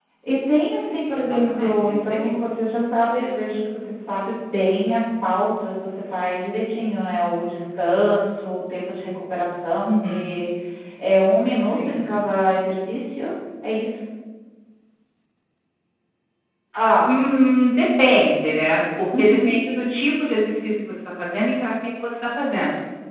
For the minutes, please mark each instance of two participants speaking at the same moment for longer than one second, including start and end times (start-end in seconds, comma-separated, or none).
1.1-2.4